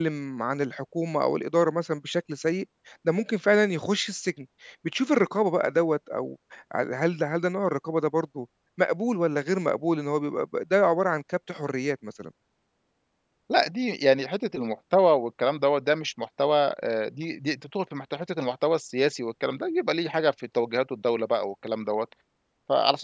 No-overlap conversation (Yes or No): Yes